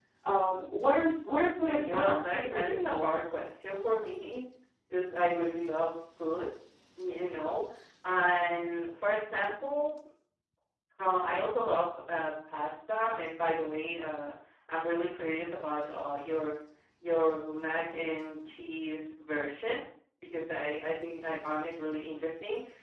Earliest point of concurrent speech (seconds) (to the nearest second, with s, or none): 2 s